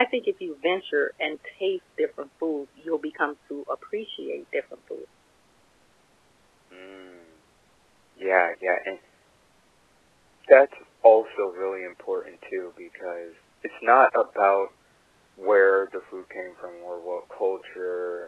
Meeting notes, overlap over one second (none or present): none